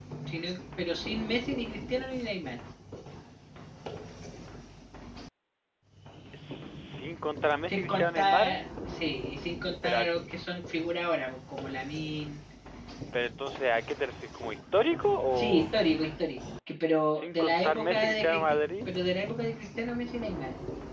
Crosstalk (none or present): present